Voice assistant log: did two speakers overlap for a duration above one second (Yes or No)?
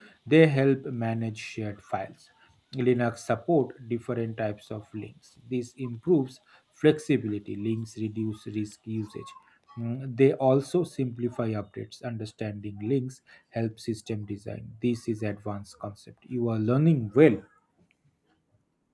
No